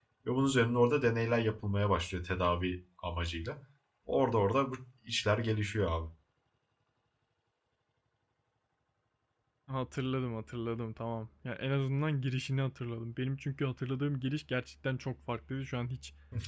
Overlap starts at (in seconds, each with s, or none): none